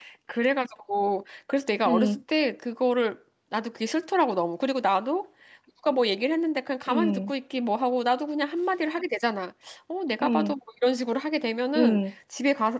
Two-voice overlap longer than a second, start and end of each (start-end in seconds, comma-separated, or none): none